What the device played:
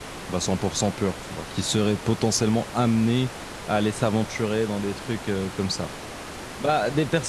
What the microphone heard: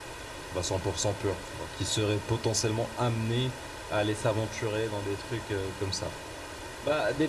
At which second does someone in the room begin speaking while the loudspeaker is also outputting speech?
none

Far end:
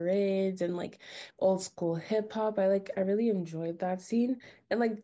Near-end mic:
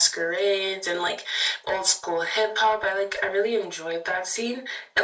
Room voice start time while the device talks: none

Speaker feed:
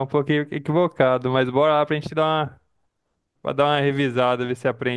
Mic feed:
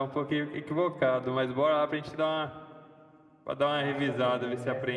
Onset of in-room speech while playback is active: 3.6 s

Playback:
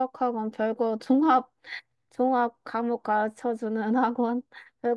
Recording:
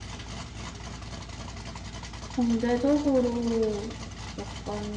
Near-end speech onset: 2.3 s

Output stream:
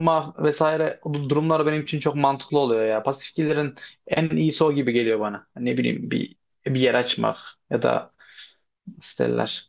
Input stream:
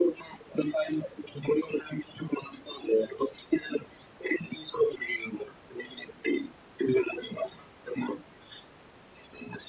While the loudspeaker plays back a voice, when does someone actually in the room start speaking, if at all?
none

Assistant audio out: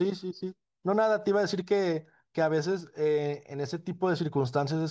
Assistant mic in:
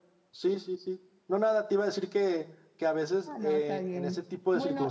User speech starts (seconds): 3.2 s

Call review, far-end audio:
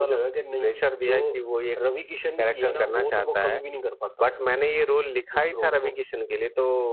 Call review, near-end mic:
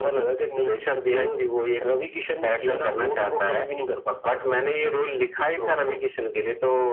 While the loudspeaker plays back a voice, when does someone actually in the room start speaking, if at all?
none

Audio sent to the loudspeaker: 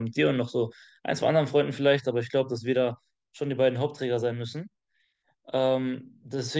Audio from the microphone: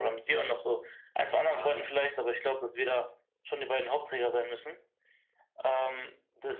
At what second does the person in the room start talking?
1.4 s

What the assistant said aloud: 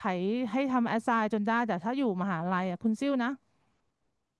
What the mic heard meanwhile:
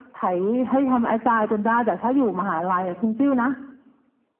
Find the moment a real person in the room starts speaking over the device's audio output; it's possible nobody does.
none

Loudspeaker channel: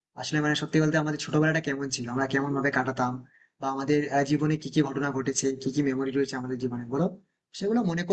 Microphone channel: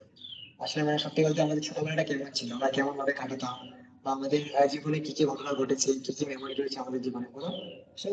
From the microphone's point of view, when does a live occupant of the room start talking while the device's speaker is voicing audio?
none

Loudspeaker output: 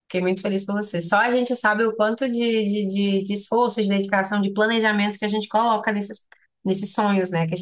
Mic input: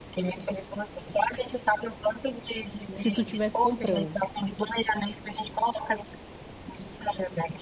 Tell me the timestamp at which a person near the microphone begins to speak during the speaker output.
3.0 s

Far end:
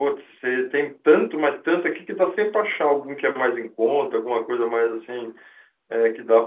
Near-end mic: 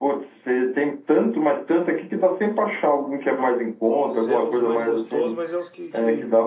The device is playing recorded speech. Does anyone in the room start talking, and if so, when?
4.0 s

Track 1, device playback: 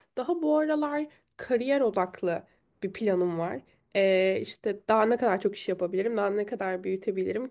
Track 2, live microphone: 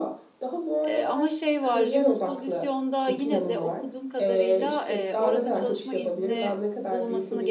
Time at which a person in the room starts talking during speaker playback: 0.8 s

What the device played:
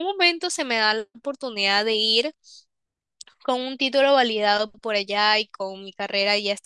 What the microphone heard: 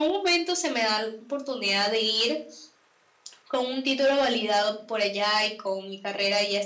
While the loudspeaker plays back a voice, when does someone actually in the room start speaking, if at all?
none

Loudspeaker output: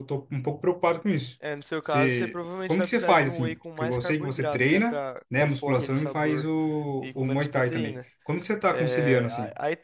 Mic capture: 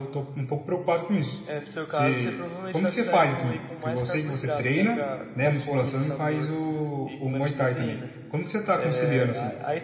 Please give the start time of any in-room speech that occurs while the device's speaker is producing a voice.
none

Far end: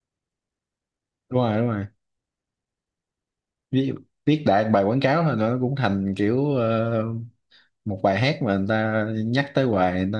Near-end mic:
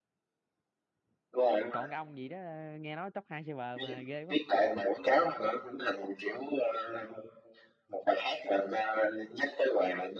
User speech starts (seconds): 1.7 s

